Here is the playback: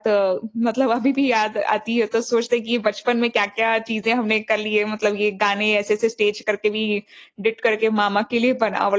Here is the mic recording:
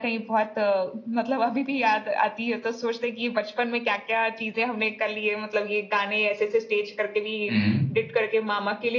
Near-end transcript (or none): हुँ।